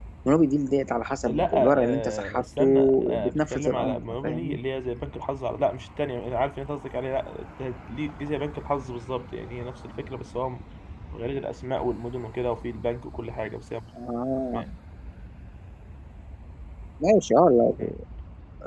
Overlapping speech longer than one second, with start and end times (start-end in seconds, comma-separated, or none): 1.3-4.6